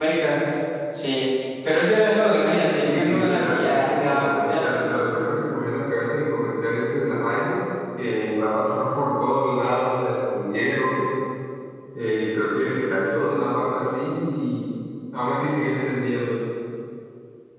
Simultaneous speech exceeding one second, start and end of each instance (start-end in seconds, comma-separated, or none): 2.8-4.9